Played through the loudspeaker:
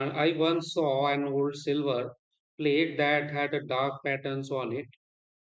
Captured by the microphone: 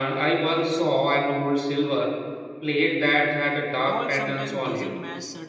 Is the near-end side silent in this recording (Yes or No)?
No